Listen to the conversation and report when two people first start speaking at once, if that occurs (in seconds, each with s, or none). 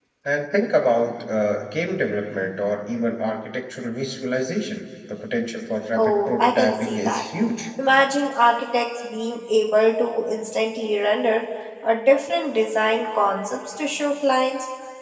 6.0 s